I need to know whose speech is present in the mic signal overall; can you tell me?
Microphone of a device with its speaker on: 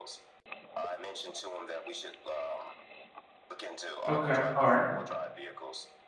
both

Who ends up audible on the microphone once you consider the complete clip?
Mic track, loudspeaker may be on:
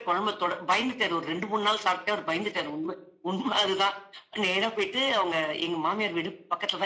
echo only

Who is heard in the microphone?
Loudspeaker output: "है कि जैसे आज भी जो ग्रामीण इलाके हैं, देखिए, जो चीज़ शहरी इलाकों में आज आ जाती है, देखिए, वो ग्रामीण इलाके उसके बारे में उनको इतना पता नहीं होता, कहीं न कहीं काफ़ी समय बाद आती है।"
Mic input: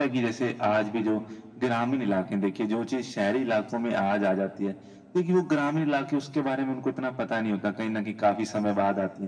echo only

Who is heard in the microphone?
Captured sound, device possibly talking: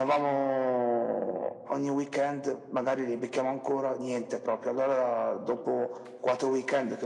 echo only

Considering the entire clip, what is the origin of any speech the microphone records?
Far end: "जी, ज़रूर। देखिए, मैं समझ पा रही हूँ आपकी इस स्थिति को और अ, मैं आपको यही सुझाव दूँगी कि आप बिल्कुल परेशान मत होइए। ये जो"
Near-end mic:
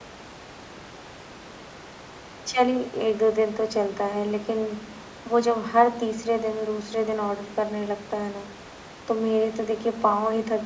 user only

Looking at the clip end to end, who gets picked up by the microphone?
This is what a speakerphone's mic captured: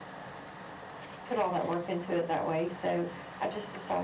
user only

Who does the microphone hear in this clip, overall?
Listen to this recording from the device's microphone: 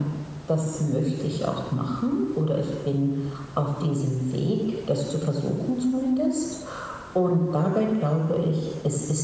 echo only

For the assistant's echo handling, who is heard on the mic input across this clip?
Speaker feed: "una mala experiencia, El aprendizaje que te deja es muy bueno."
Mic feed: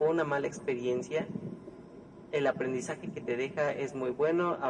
echo only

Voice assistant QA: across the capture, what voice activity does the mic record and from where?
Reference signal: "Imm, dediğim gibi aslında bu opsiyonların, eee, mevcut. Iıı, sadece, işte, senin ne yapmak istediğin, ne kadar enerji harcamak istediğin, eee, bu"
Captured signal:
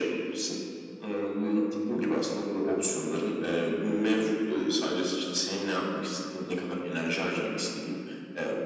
echo only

